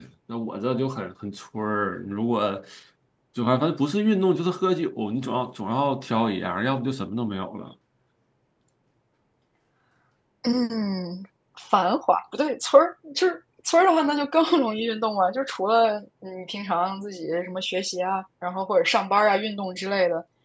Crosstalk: none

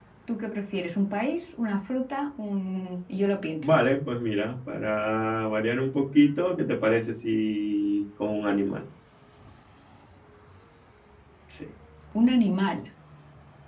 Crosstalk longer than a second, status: none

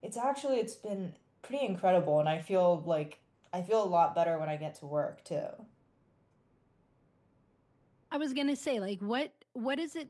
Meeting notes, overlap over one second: none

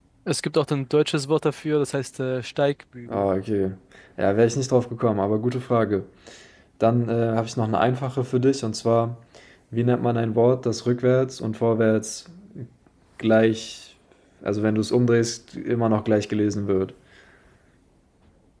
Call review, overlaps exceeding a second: none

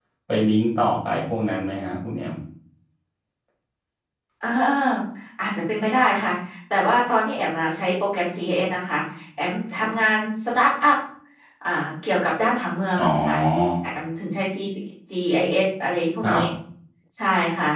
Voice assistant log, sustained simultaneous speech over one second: none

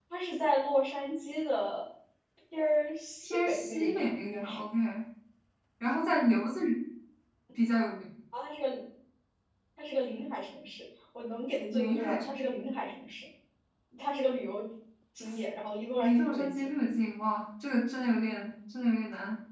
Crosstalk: present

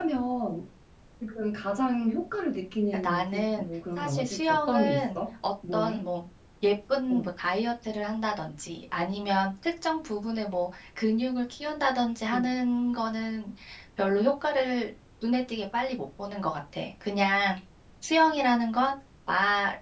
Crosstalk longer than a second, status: present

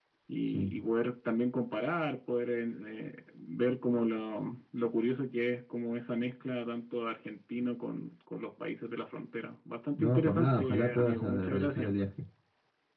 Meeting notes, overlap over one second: present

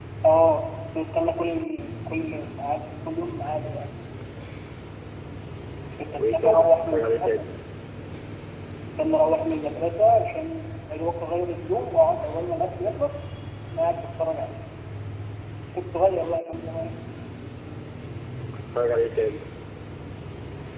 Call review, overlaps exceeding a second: present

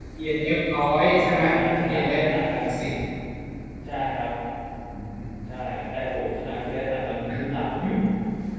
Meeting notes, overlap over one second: none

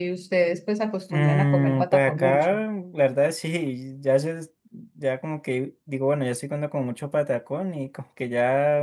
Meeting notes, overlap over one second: present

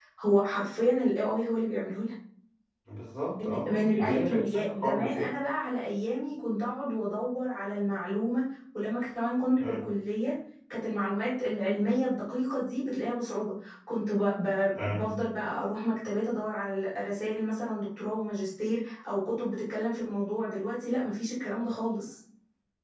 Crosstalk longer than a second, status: present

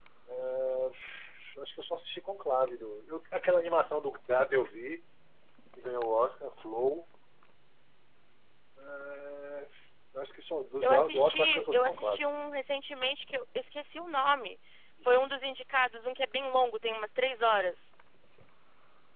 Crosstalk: present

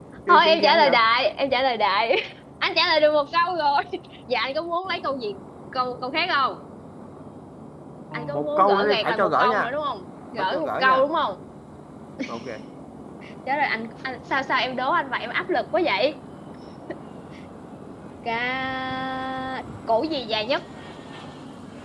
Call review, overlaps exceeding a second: present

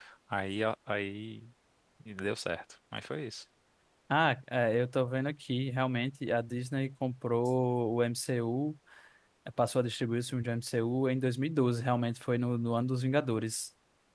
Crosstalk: none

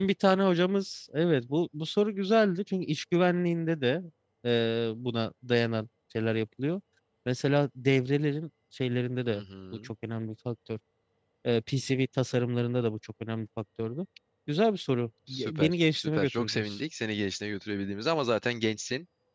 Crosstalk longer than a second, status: present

